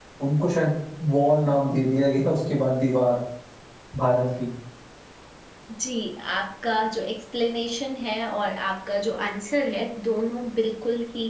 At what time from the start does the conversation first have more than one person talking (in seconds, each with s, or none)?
none